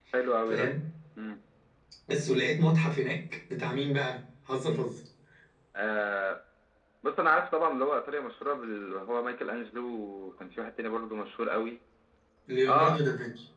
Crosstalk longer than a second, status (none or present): none